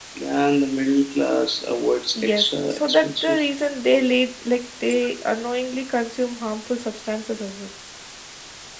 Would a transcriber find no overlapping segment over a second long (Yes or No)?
No